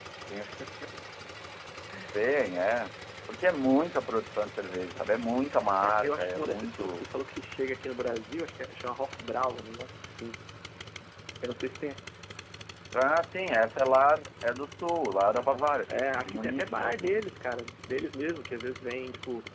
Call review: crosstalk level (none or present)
present